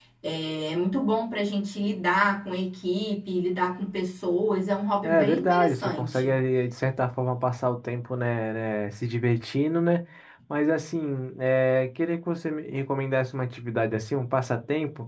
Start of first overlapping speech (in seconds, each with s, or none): 5.0 s